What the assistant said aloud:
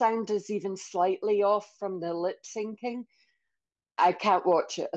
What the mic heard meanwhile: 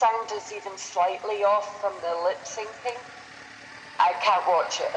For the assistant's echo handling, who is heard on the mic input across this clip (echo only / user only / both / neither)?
echo only